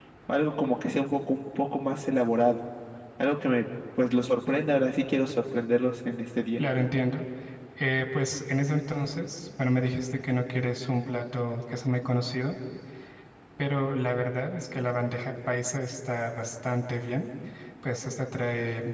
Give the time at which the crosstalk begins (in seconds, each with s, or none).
none